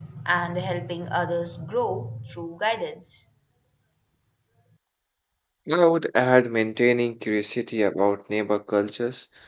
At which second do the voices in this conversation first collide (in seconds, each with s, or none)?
none